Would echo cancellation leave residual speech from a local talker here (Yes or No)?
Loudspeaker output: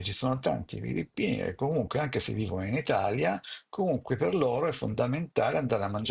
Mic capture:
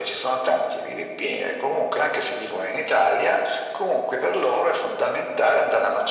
No